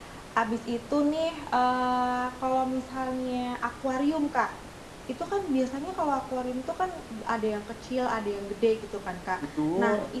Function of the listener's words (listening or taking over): listening